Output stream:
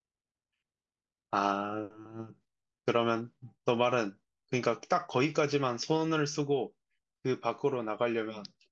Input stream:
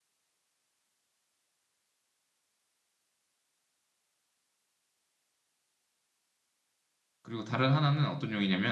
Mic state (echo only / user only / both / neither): user only